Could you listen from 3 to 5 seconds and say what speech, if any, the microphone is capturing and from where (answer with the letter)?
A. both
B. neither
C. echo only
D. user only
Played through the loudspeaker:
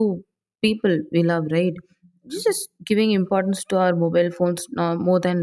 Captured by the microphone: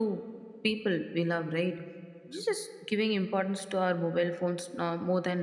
C